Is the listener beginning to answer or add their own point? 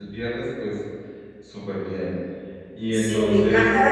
Yes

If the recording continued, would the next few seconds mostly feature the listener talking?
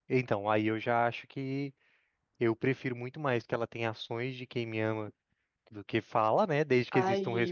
Yes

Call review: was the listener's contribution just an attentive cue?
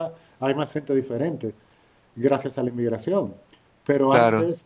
Yes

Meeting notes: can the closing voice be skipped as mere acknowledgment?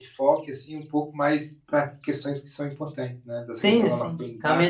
No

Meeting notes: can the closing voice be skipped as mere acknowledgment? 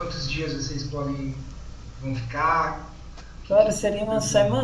No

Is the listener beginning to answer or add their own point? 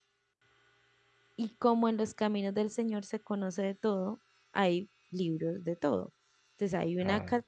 No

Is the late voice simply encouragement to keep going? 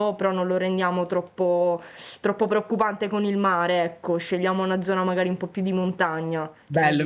No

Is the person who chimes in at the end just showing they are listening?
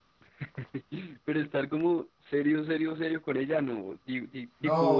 No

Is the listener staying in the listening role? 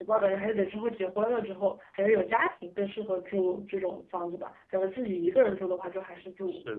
No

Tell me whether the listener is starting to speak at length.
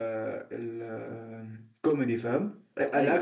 No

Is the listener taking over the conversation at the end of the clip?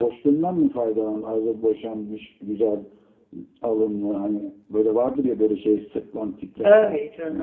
Yes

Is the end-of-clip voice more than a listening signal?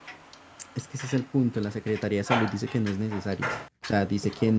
No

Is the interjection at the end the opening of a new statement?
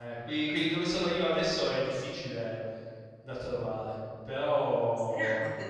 Yes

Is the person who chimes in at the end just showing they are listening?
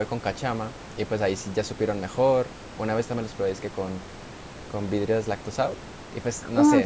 No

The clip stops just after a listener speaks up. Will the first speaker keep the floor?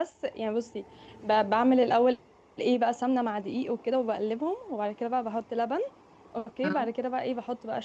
Yes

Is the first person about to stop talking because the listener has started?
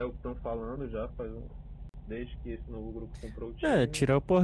Yes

